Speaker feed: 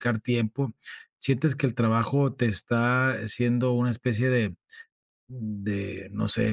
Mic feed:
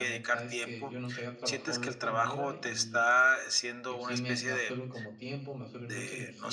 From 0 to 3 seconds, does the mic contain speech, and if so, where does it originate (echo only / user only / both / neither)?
both